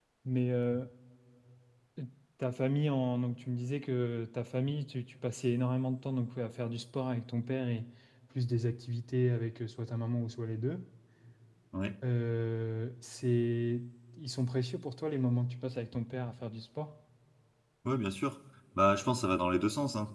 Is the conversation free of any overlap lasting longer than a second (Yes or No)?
Yes